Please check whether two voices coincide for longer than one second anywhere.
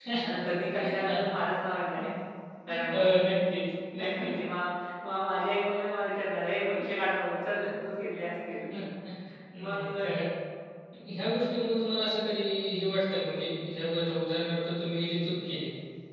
No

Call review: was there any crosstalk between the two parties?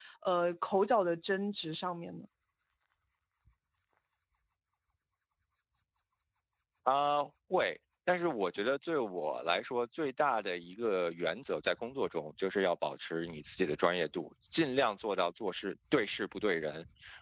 No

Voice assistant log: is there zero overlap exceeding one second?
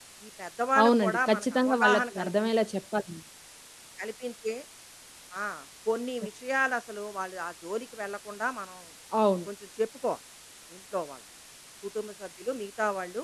No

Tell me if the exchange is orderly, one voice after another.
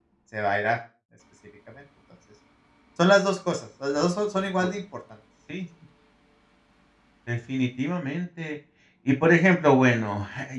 Yes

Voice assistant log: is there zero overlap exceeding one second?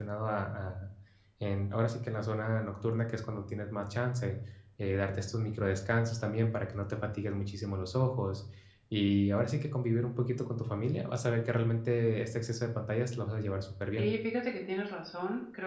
Yes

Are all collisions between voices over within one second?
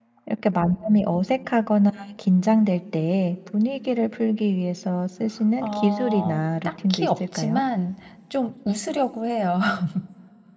No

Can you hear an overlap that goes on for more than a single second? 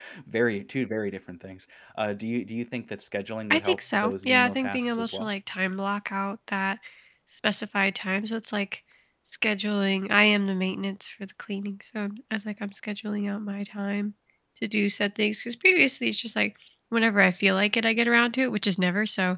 Yes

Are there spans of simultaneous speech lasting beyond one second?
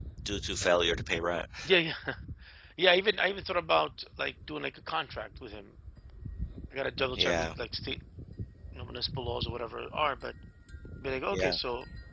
No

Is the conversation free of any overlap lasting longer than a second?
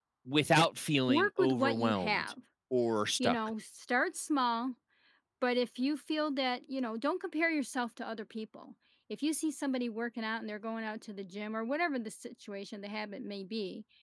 No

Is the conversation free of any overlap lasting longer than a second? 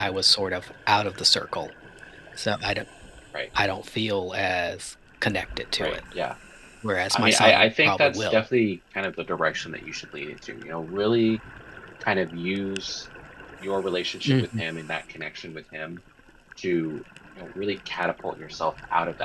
No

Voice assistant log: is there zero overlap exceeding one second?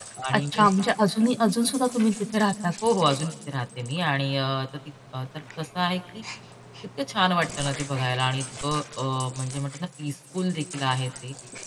Yes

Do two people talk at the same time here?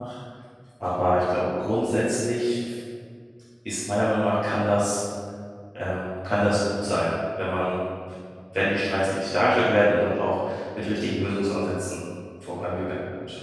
No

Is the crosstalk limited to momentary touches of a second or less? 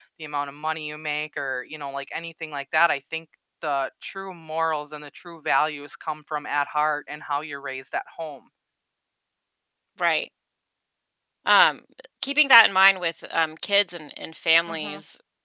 Yes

